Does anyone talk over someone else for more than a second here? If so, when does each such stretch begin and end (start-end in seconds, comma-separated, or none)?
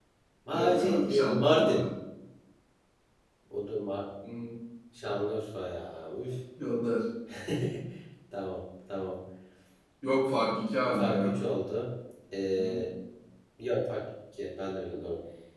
0.5-1.8